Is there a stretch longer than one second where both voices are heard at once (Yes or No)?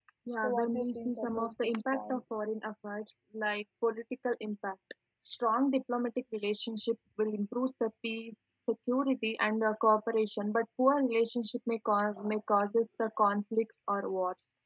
Yes